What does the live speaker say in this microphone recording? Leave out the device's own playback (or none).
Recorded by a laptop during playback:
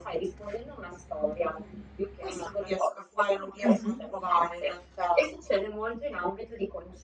Mh-mh.